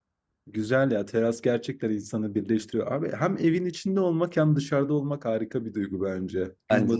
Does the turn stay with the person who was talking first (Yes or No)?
Yes